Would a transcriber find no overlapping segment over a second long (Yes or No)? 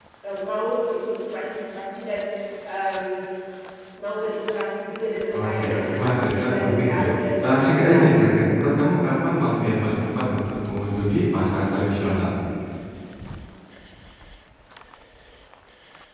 No